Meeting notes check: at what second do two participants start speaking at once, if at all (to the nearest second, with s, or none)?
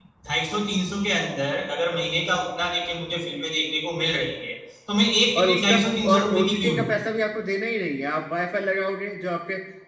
5 s